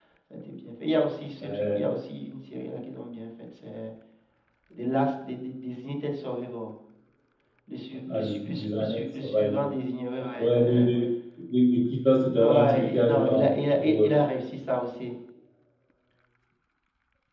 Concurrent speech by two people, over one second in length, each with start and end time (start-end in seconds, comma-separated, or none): 8.1-9.7, 12.3-14.1